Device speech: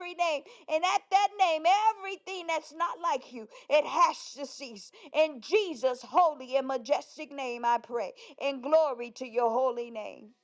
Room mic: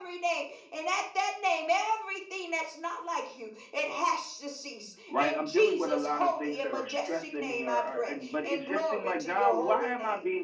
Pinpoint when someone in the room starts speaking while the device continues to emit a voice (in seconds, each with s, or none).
5.1 s